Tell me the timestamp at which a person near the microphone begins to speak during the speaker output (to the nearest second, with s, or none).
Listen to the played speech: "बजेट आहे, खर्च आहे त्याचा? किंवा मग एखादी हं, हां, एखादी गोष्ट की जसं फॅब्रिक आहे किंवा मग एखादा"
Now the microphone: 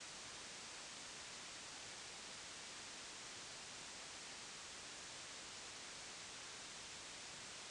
none